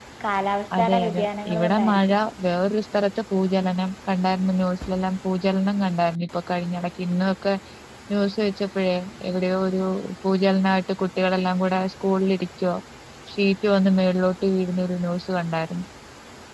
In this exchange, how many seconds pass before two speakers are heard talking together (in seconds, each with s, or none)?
0.8 s